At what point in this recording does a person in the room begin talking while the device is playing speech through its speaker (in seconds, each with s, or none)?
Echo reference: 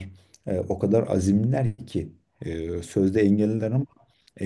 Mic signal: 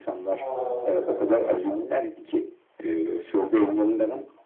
0.4 s